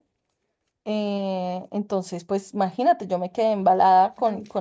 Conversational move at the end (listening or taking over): listening